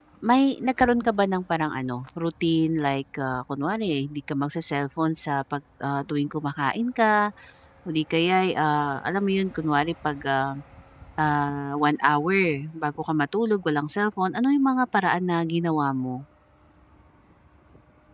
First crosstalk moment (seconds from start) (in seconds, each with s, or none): none